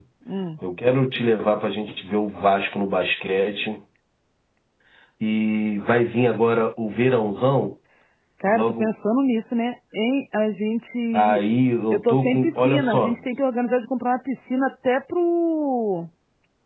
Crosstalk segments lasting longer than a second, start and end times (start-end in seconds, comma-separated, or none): 11.9-13.1